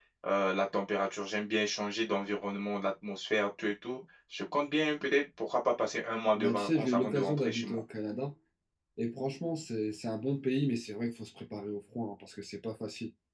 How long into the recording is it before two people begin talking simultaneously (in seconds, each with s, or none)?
6.4 s